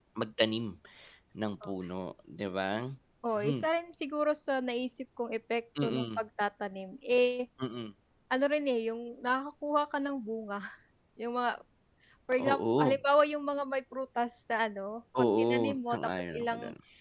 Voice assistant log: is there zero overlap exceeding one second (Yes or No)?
No